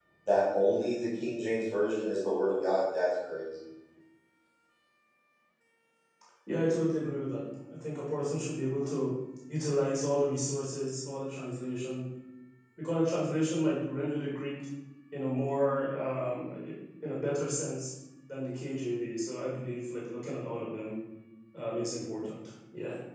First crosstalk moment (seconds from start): none

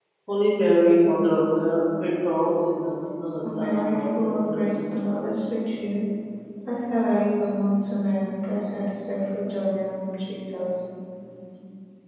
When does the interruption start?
3.4 s

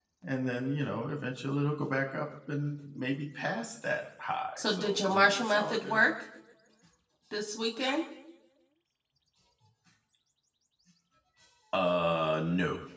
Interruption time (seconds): 4.6 s

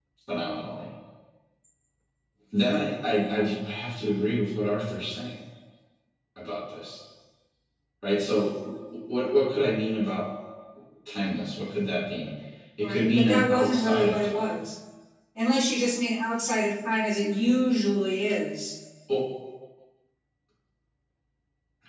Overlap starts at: 12.8 s

